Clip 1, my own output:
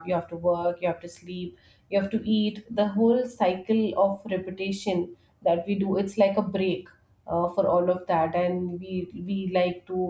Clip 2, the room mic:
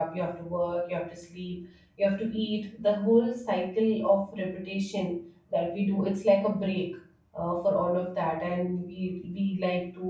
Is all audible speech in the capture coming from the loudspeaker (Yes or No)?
Yes